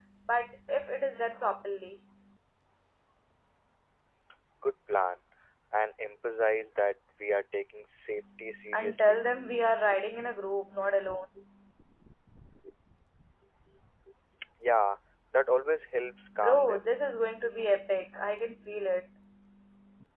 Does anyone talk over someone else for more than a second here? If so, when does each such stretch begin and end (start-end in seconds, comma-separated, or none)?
none